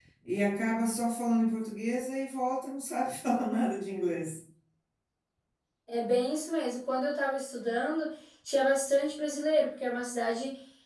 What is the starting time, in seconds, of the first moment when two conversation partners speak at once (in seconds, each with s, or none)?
none